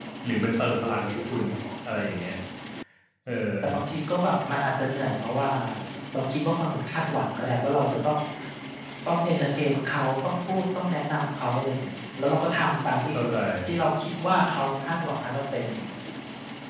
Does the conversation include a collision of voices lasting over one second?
No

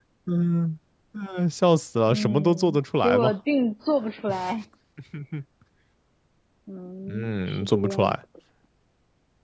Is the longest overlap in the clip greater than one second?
Yes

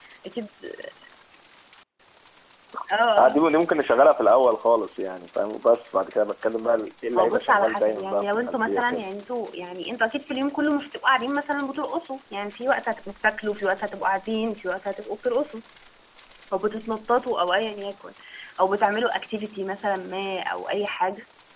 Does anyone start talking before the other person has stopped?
Yes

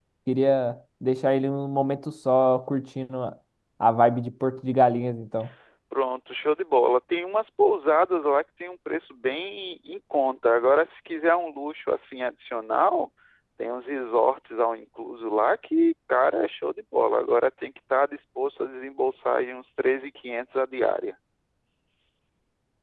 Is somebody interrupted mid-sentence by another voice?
No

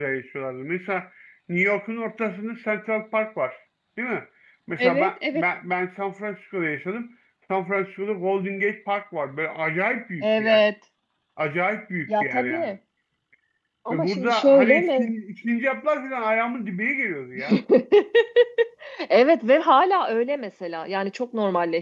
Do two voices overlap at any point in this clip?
Yes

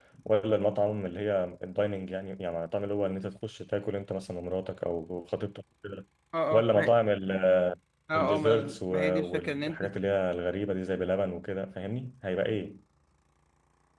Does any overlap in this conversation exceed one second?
Yes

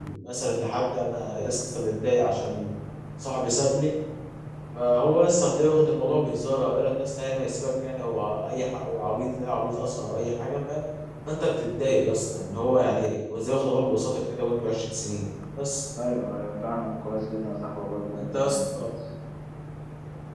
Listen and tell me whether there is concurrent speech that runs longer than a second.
No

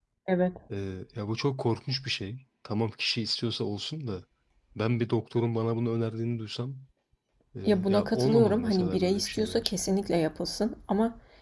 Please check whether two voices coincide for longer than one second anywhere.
Yes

